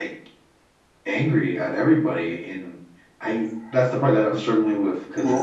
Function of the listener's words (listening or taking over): listening